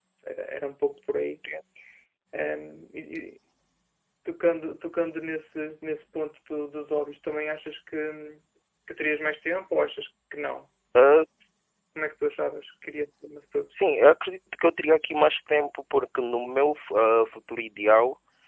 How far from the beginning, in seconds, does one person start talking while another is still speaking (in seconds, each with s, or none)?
none